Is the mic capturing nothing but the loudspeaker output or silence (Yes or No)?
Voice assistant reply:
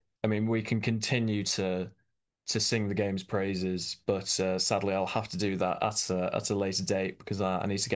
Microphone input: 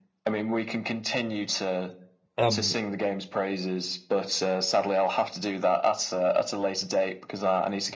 No